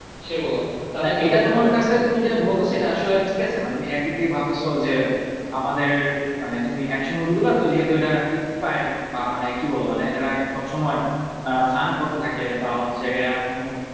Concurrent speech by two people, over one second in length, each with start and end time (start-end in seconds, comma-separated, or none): 1.0-2.9